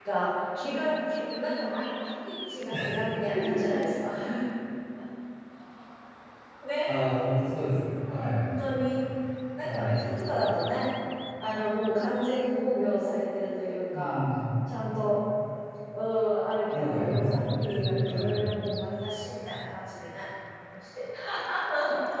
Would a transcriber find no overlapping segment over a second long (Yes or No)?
No